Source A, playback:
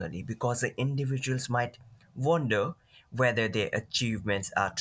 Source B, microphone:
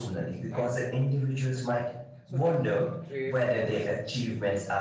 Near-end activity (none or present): present